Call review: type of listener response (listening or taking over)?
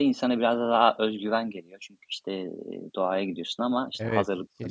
taking over